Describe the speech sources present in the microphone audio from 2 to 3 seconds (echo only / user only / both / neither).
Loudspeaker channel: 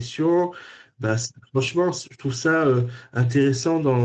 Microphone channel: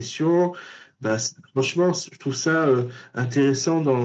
echo only